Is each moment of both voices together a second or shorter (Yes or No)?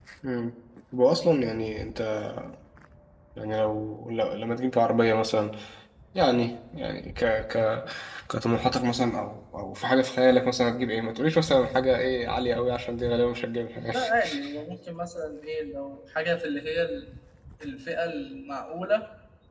Yes